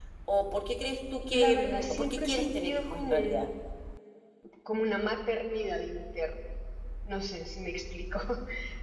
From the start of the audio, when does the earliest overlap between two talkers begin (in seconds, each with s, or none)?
1.3 s